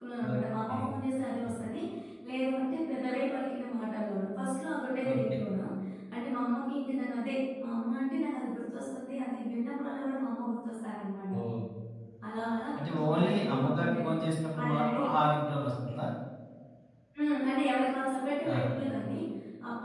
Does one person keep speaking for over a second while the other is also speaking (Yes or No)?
Yes